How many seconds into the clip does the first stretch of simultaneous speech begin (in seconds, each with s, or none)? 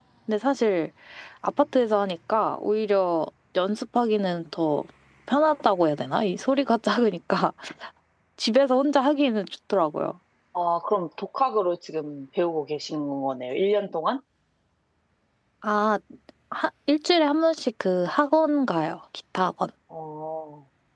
none